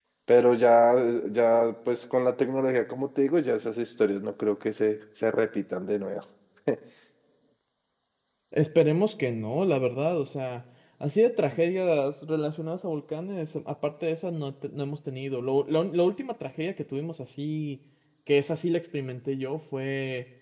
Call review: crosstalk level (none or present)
none